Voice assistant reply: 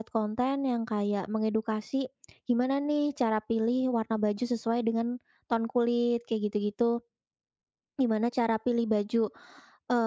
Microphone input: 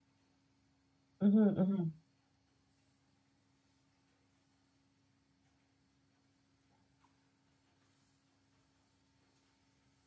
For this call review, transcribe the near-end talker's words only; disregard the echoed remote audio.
mhm mhm,

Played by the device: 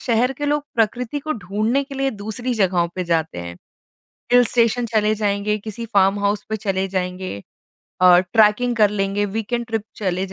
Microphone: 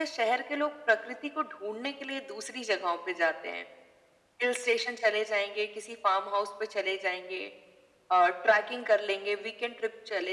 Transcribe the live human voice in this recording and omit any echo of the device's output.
none

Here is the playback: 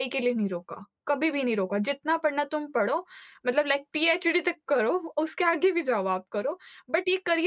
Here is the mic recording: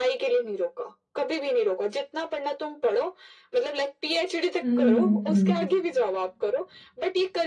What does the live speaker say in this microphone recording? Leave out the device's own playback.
हुँ,

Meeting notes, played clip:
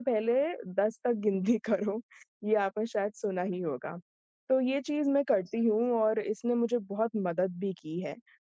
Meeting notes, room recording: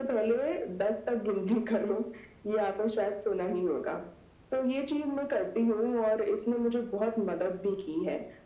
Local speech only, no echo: none

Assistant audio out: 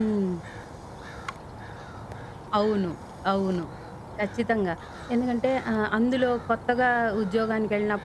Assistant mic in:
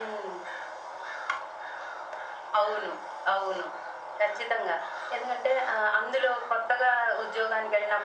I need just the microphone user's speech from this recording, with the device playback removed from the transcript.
none

